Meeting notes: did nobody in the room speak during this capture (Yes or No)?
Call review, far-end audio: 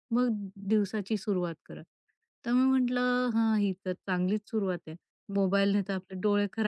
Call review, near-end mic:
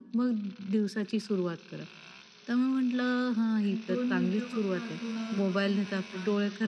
No